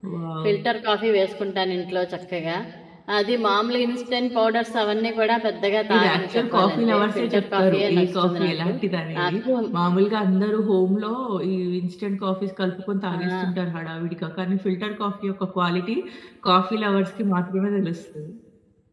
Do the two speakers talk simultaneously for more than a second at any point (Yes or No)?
Yes